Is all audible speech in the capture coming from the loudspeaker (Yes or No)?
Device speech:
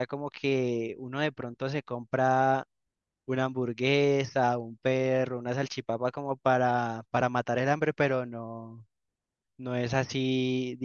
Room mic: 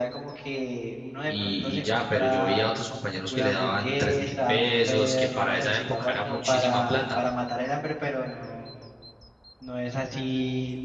No